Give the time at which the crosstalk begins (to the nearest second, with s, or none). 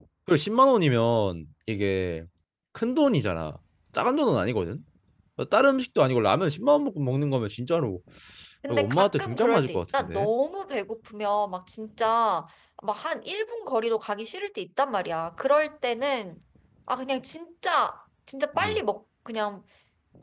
9 s